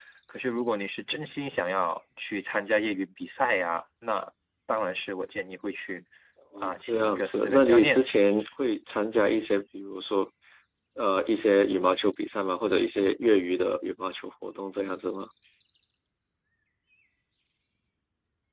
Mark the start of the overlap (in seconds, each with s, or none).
6.6 s